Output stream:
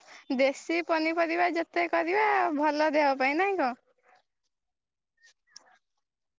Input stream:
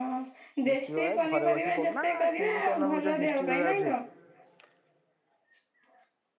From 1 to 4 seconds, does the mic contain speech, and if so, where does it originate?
both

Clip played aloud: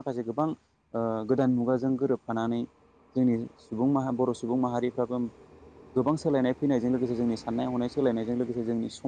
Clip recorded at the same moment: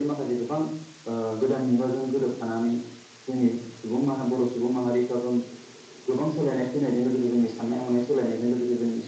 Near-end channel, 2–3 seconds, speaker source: echo only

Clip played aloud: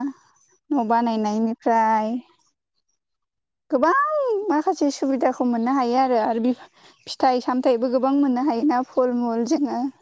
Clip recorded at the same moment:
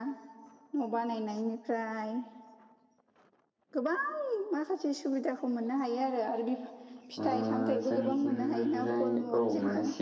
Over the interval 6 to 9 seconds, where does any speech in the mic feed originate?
both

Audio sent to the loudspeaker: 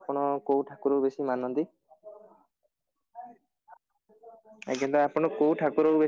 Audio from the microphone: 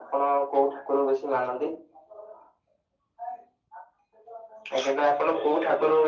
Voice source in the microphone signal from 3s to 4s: echo only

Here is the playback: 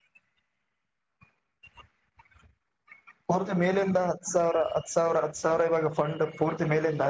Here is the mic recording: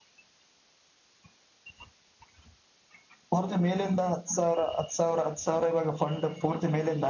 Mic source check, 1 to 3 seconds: neither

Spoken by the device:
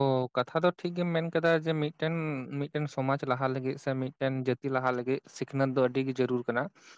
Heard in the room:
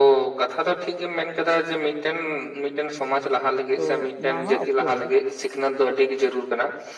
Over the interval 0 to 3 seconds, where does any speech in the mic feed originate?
echo only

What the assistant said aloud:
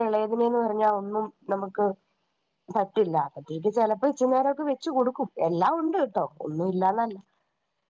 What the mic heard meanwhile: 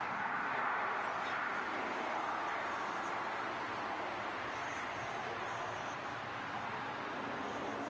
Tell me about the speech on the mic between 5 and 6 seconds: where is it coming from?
neither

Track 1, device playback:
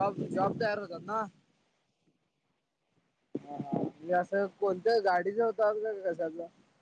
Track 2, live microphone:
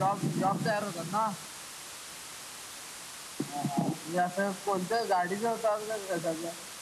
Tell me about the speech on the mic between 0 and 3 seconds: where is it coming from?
echo only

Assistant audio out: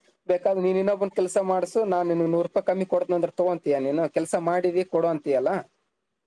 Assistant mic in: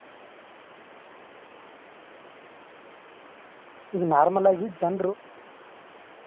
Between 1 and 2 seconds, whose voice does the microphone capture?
neither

